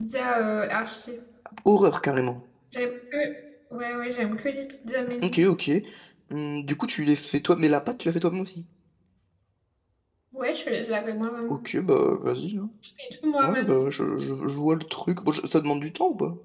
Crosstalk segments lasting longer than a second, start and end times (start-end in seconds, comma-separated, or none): none